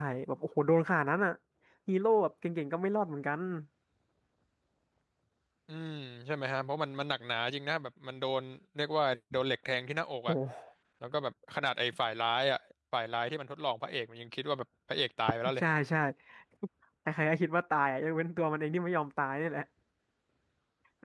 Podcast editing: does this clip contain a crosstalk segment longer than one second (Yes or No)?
No